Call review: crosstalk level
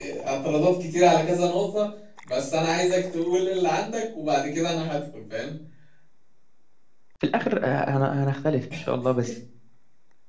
none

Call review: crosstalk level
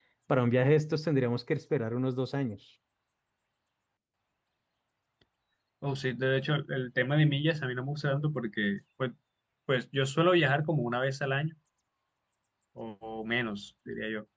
none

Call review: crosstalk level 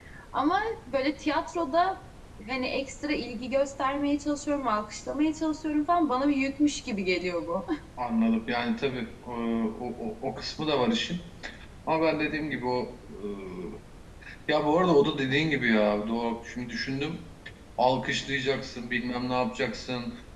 none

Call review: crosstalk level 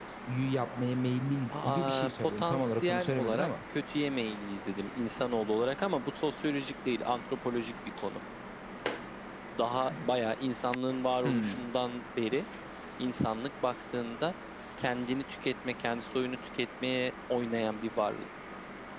present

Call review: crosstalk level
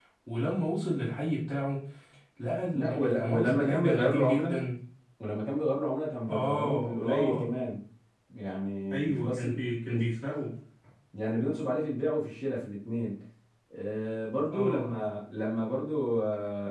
present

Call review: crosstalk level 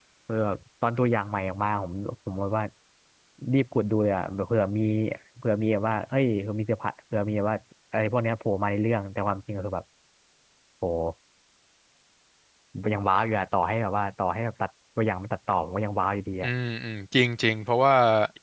none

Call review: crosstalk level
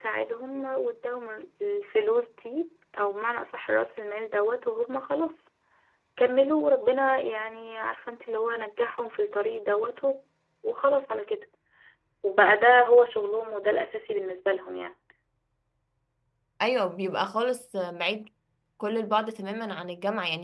none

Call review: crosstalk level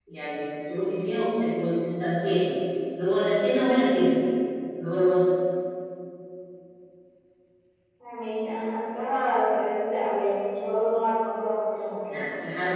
none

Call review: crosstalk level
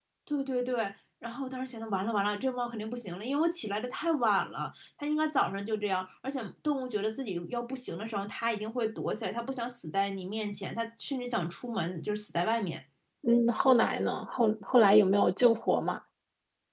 none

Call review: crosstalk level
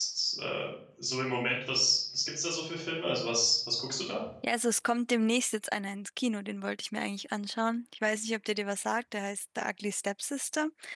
none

